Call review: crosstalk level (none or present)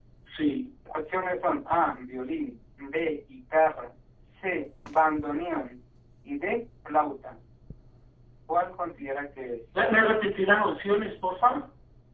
none